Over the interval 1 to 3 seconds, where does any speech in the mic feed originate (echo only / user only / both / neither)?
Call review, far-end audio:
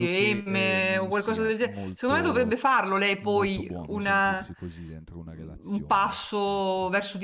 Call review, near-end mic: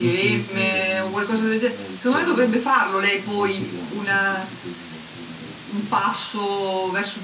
echo only